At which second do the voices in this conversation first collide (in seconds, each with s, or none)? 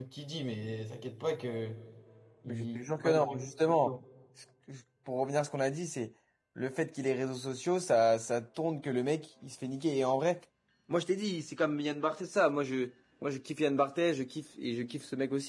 2.5 s